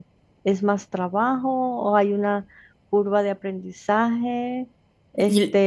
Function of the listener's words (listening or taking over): listening